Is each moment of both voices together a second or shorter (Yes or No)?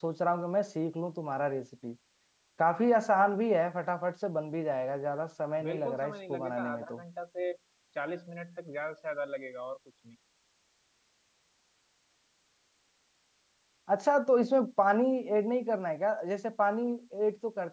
No